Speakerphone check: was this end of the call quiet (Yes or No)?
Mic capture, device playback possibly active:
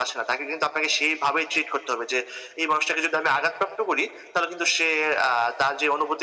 Yes